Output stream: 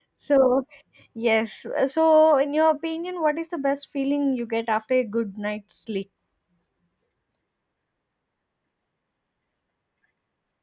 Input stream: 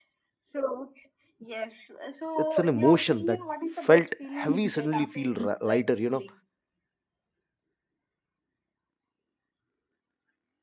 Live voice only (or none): it's an emotion that felt heavy suddenly feel ri- lighter you know